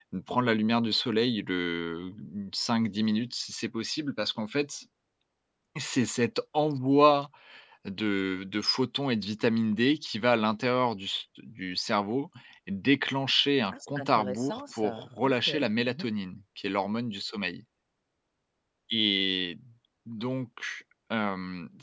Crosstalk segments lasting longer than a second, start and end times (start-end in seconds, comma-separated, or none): 13.7-15.5